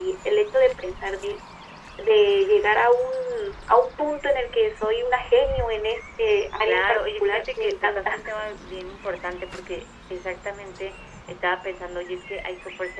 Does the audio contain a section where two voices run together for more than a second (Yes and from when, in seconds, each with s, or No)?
Yes, from 6.6 s